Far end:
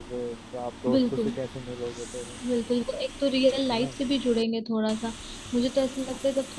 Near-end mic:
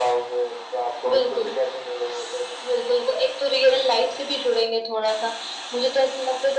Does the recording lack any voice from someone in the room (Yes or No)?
Yes